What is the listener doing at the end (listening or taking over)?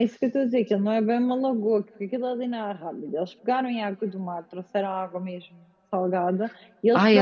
listening